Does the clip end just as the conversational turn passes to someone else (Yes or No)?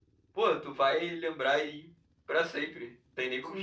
Yes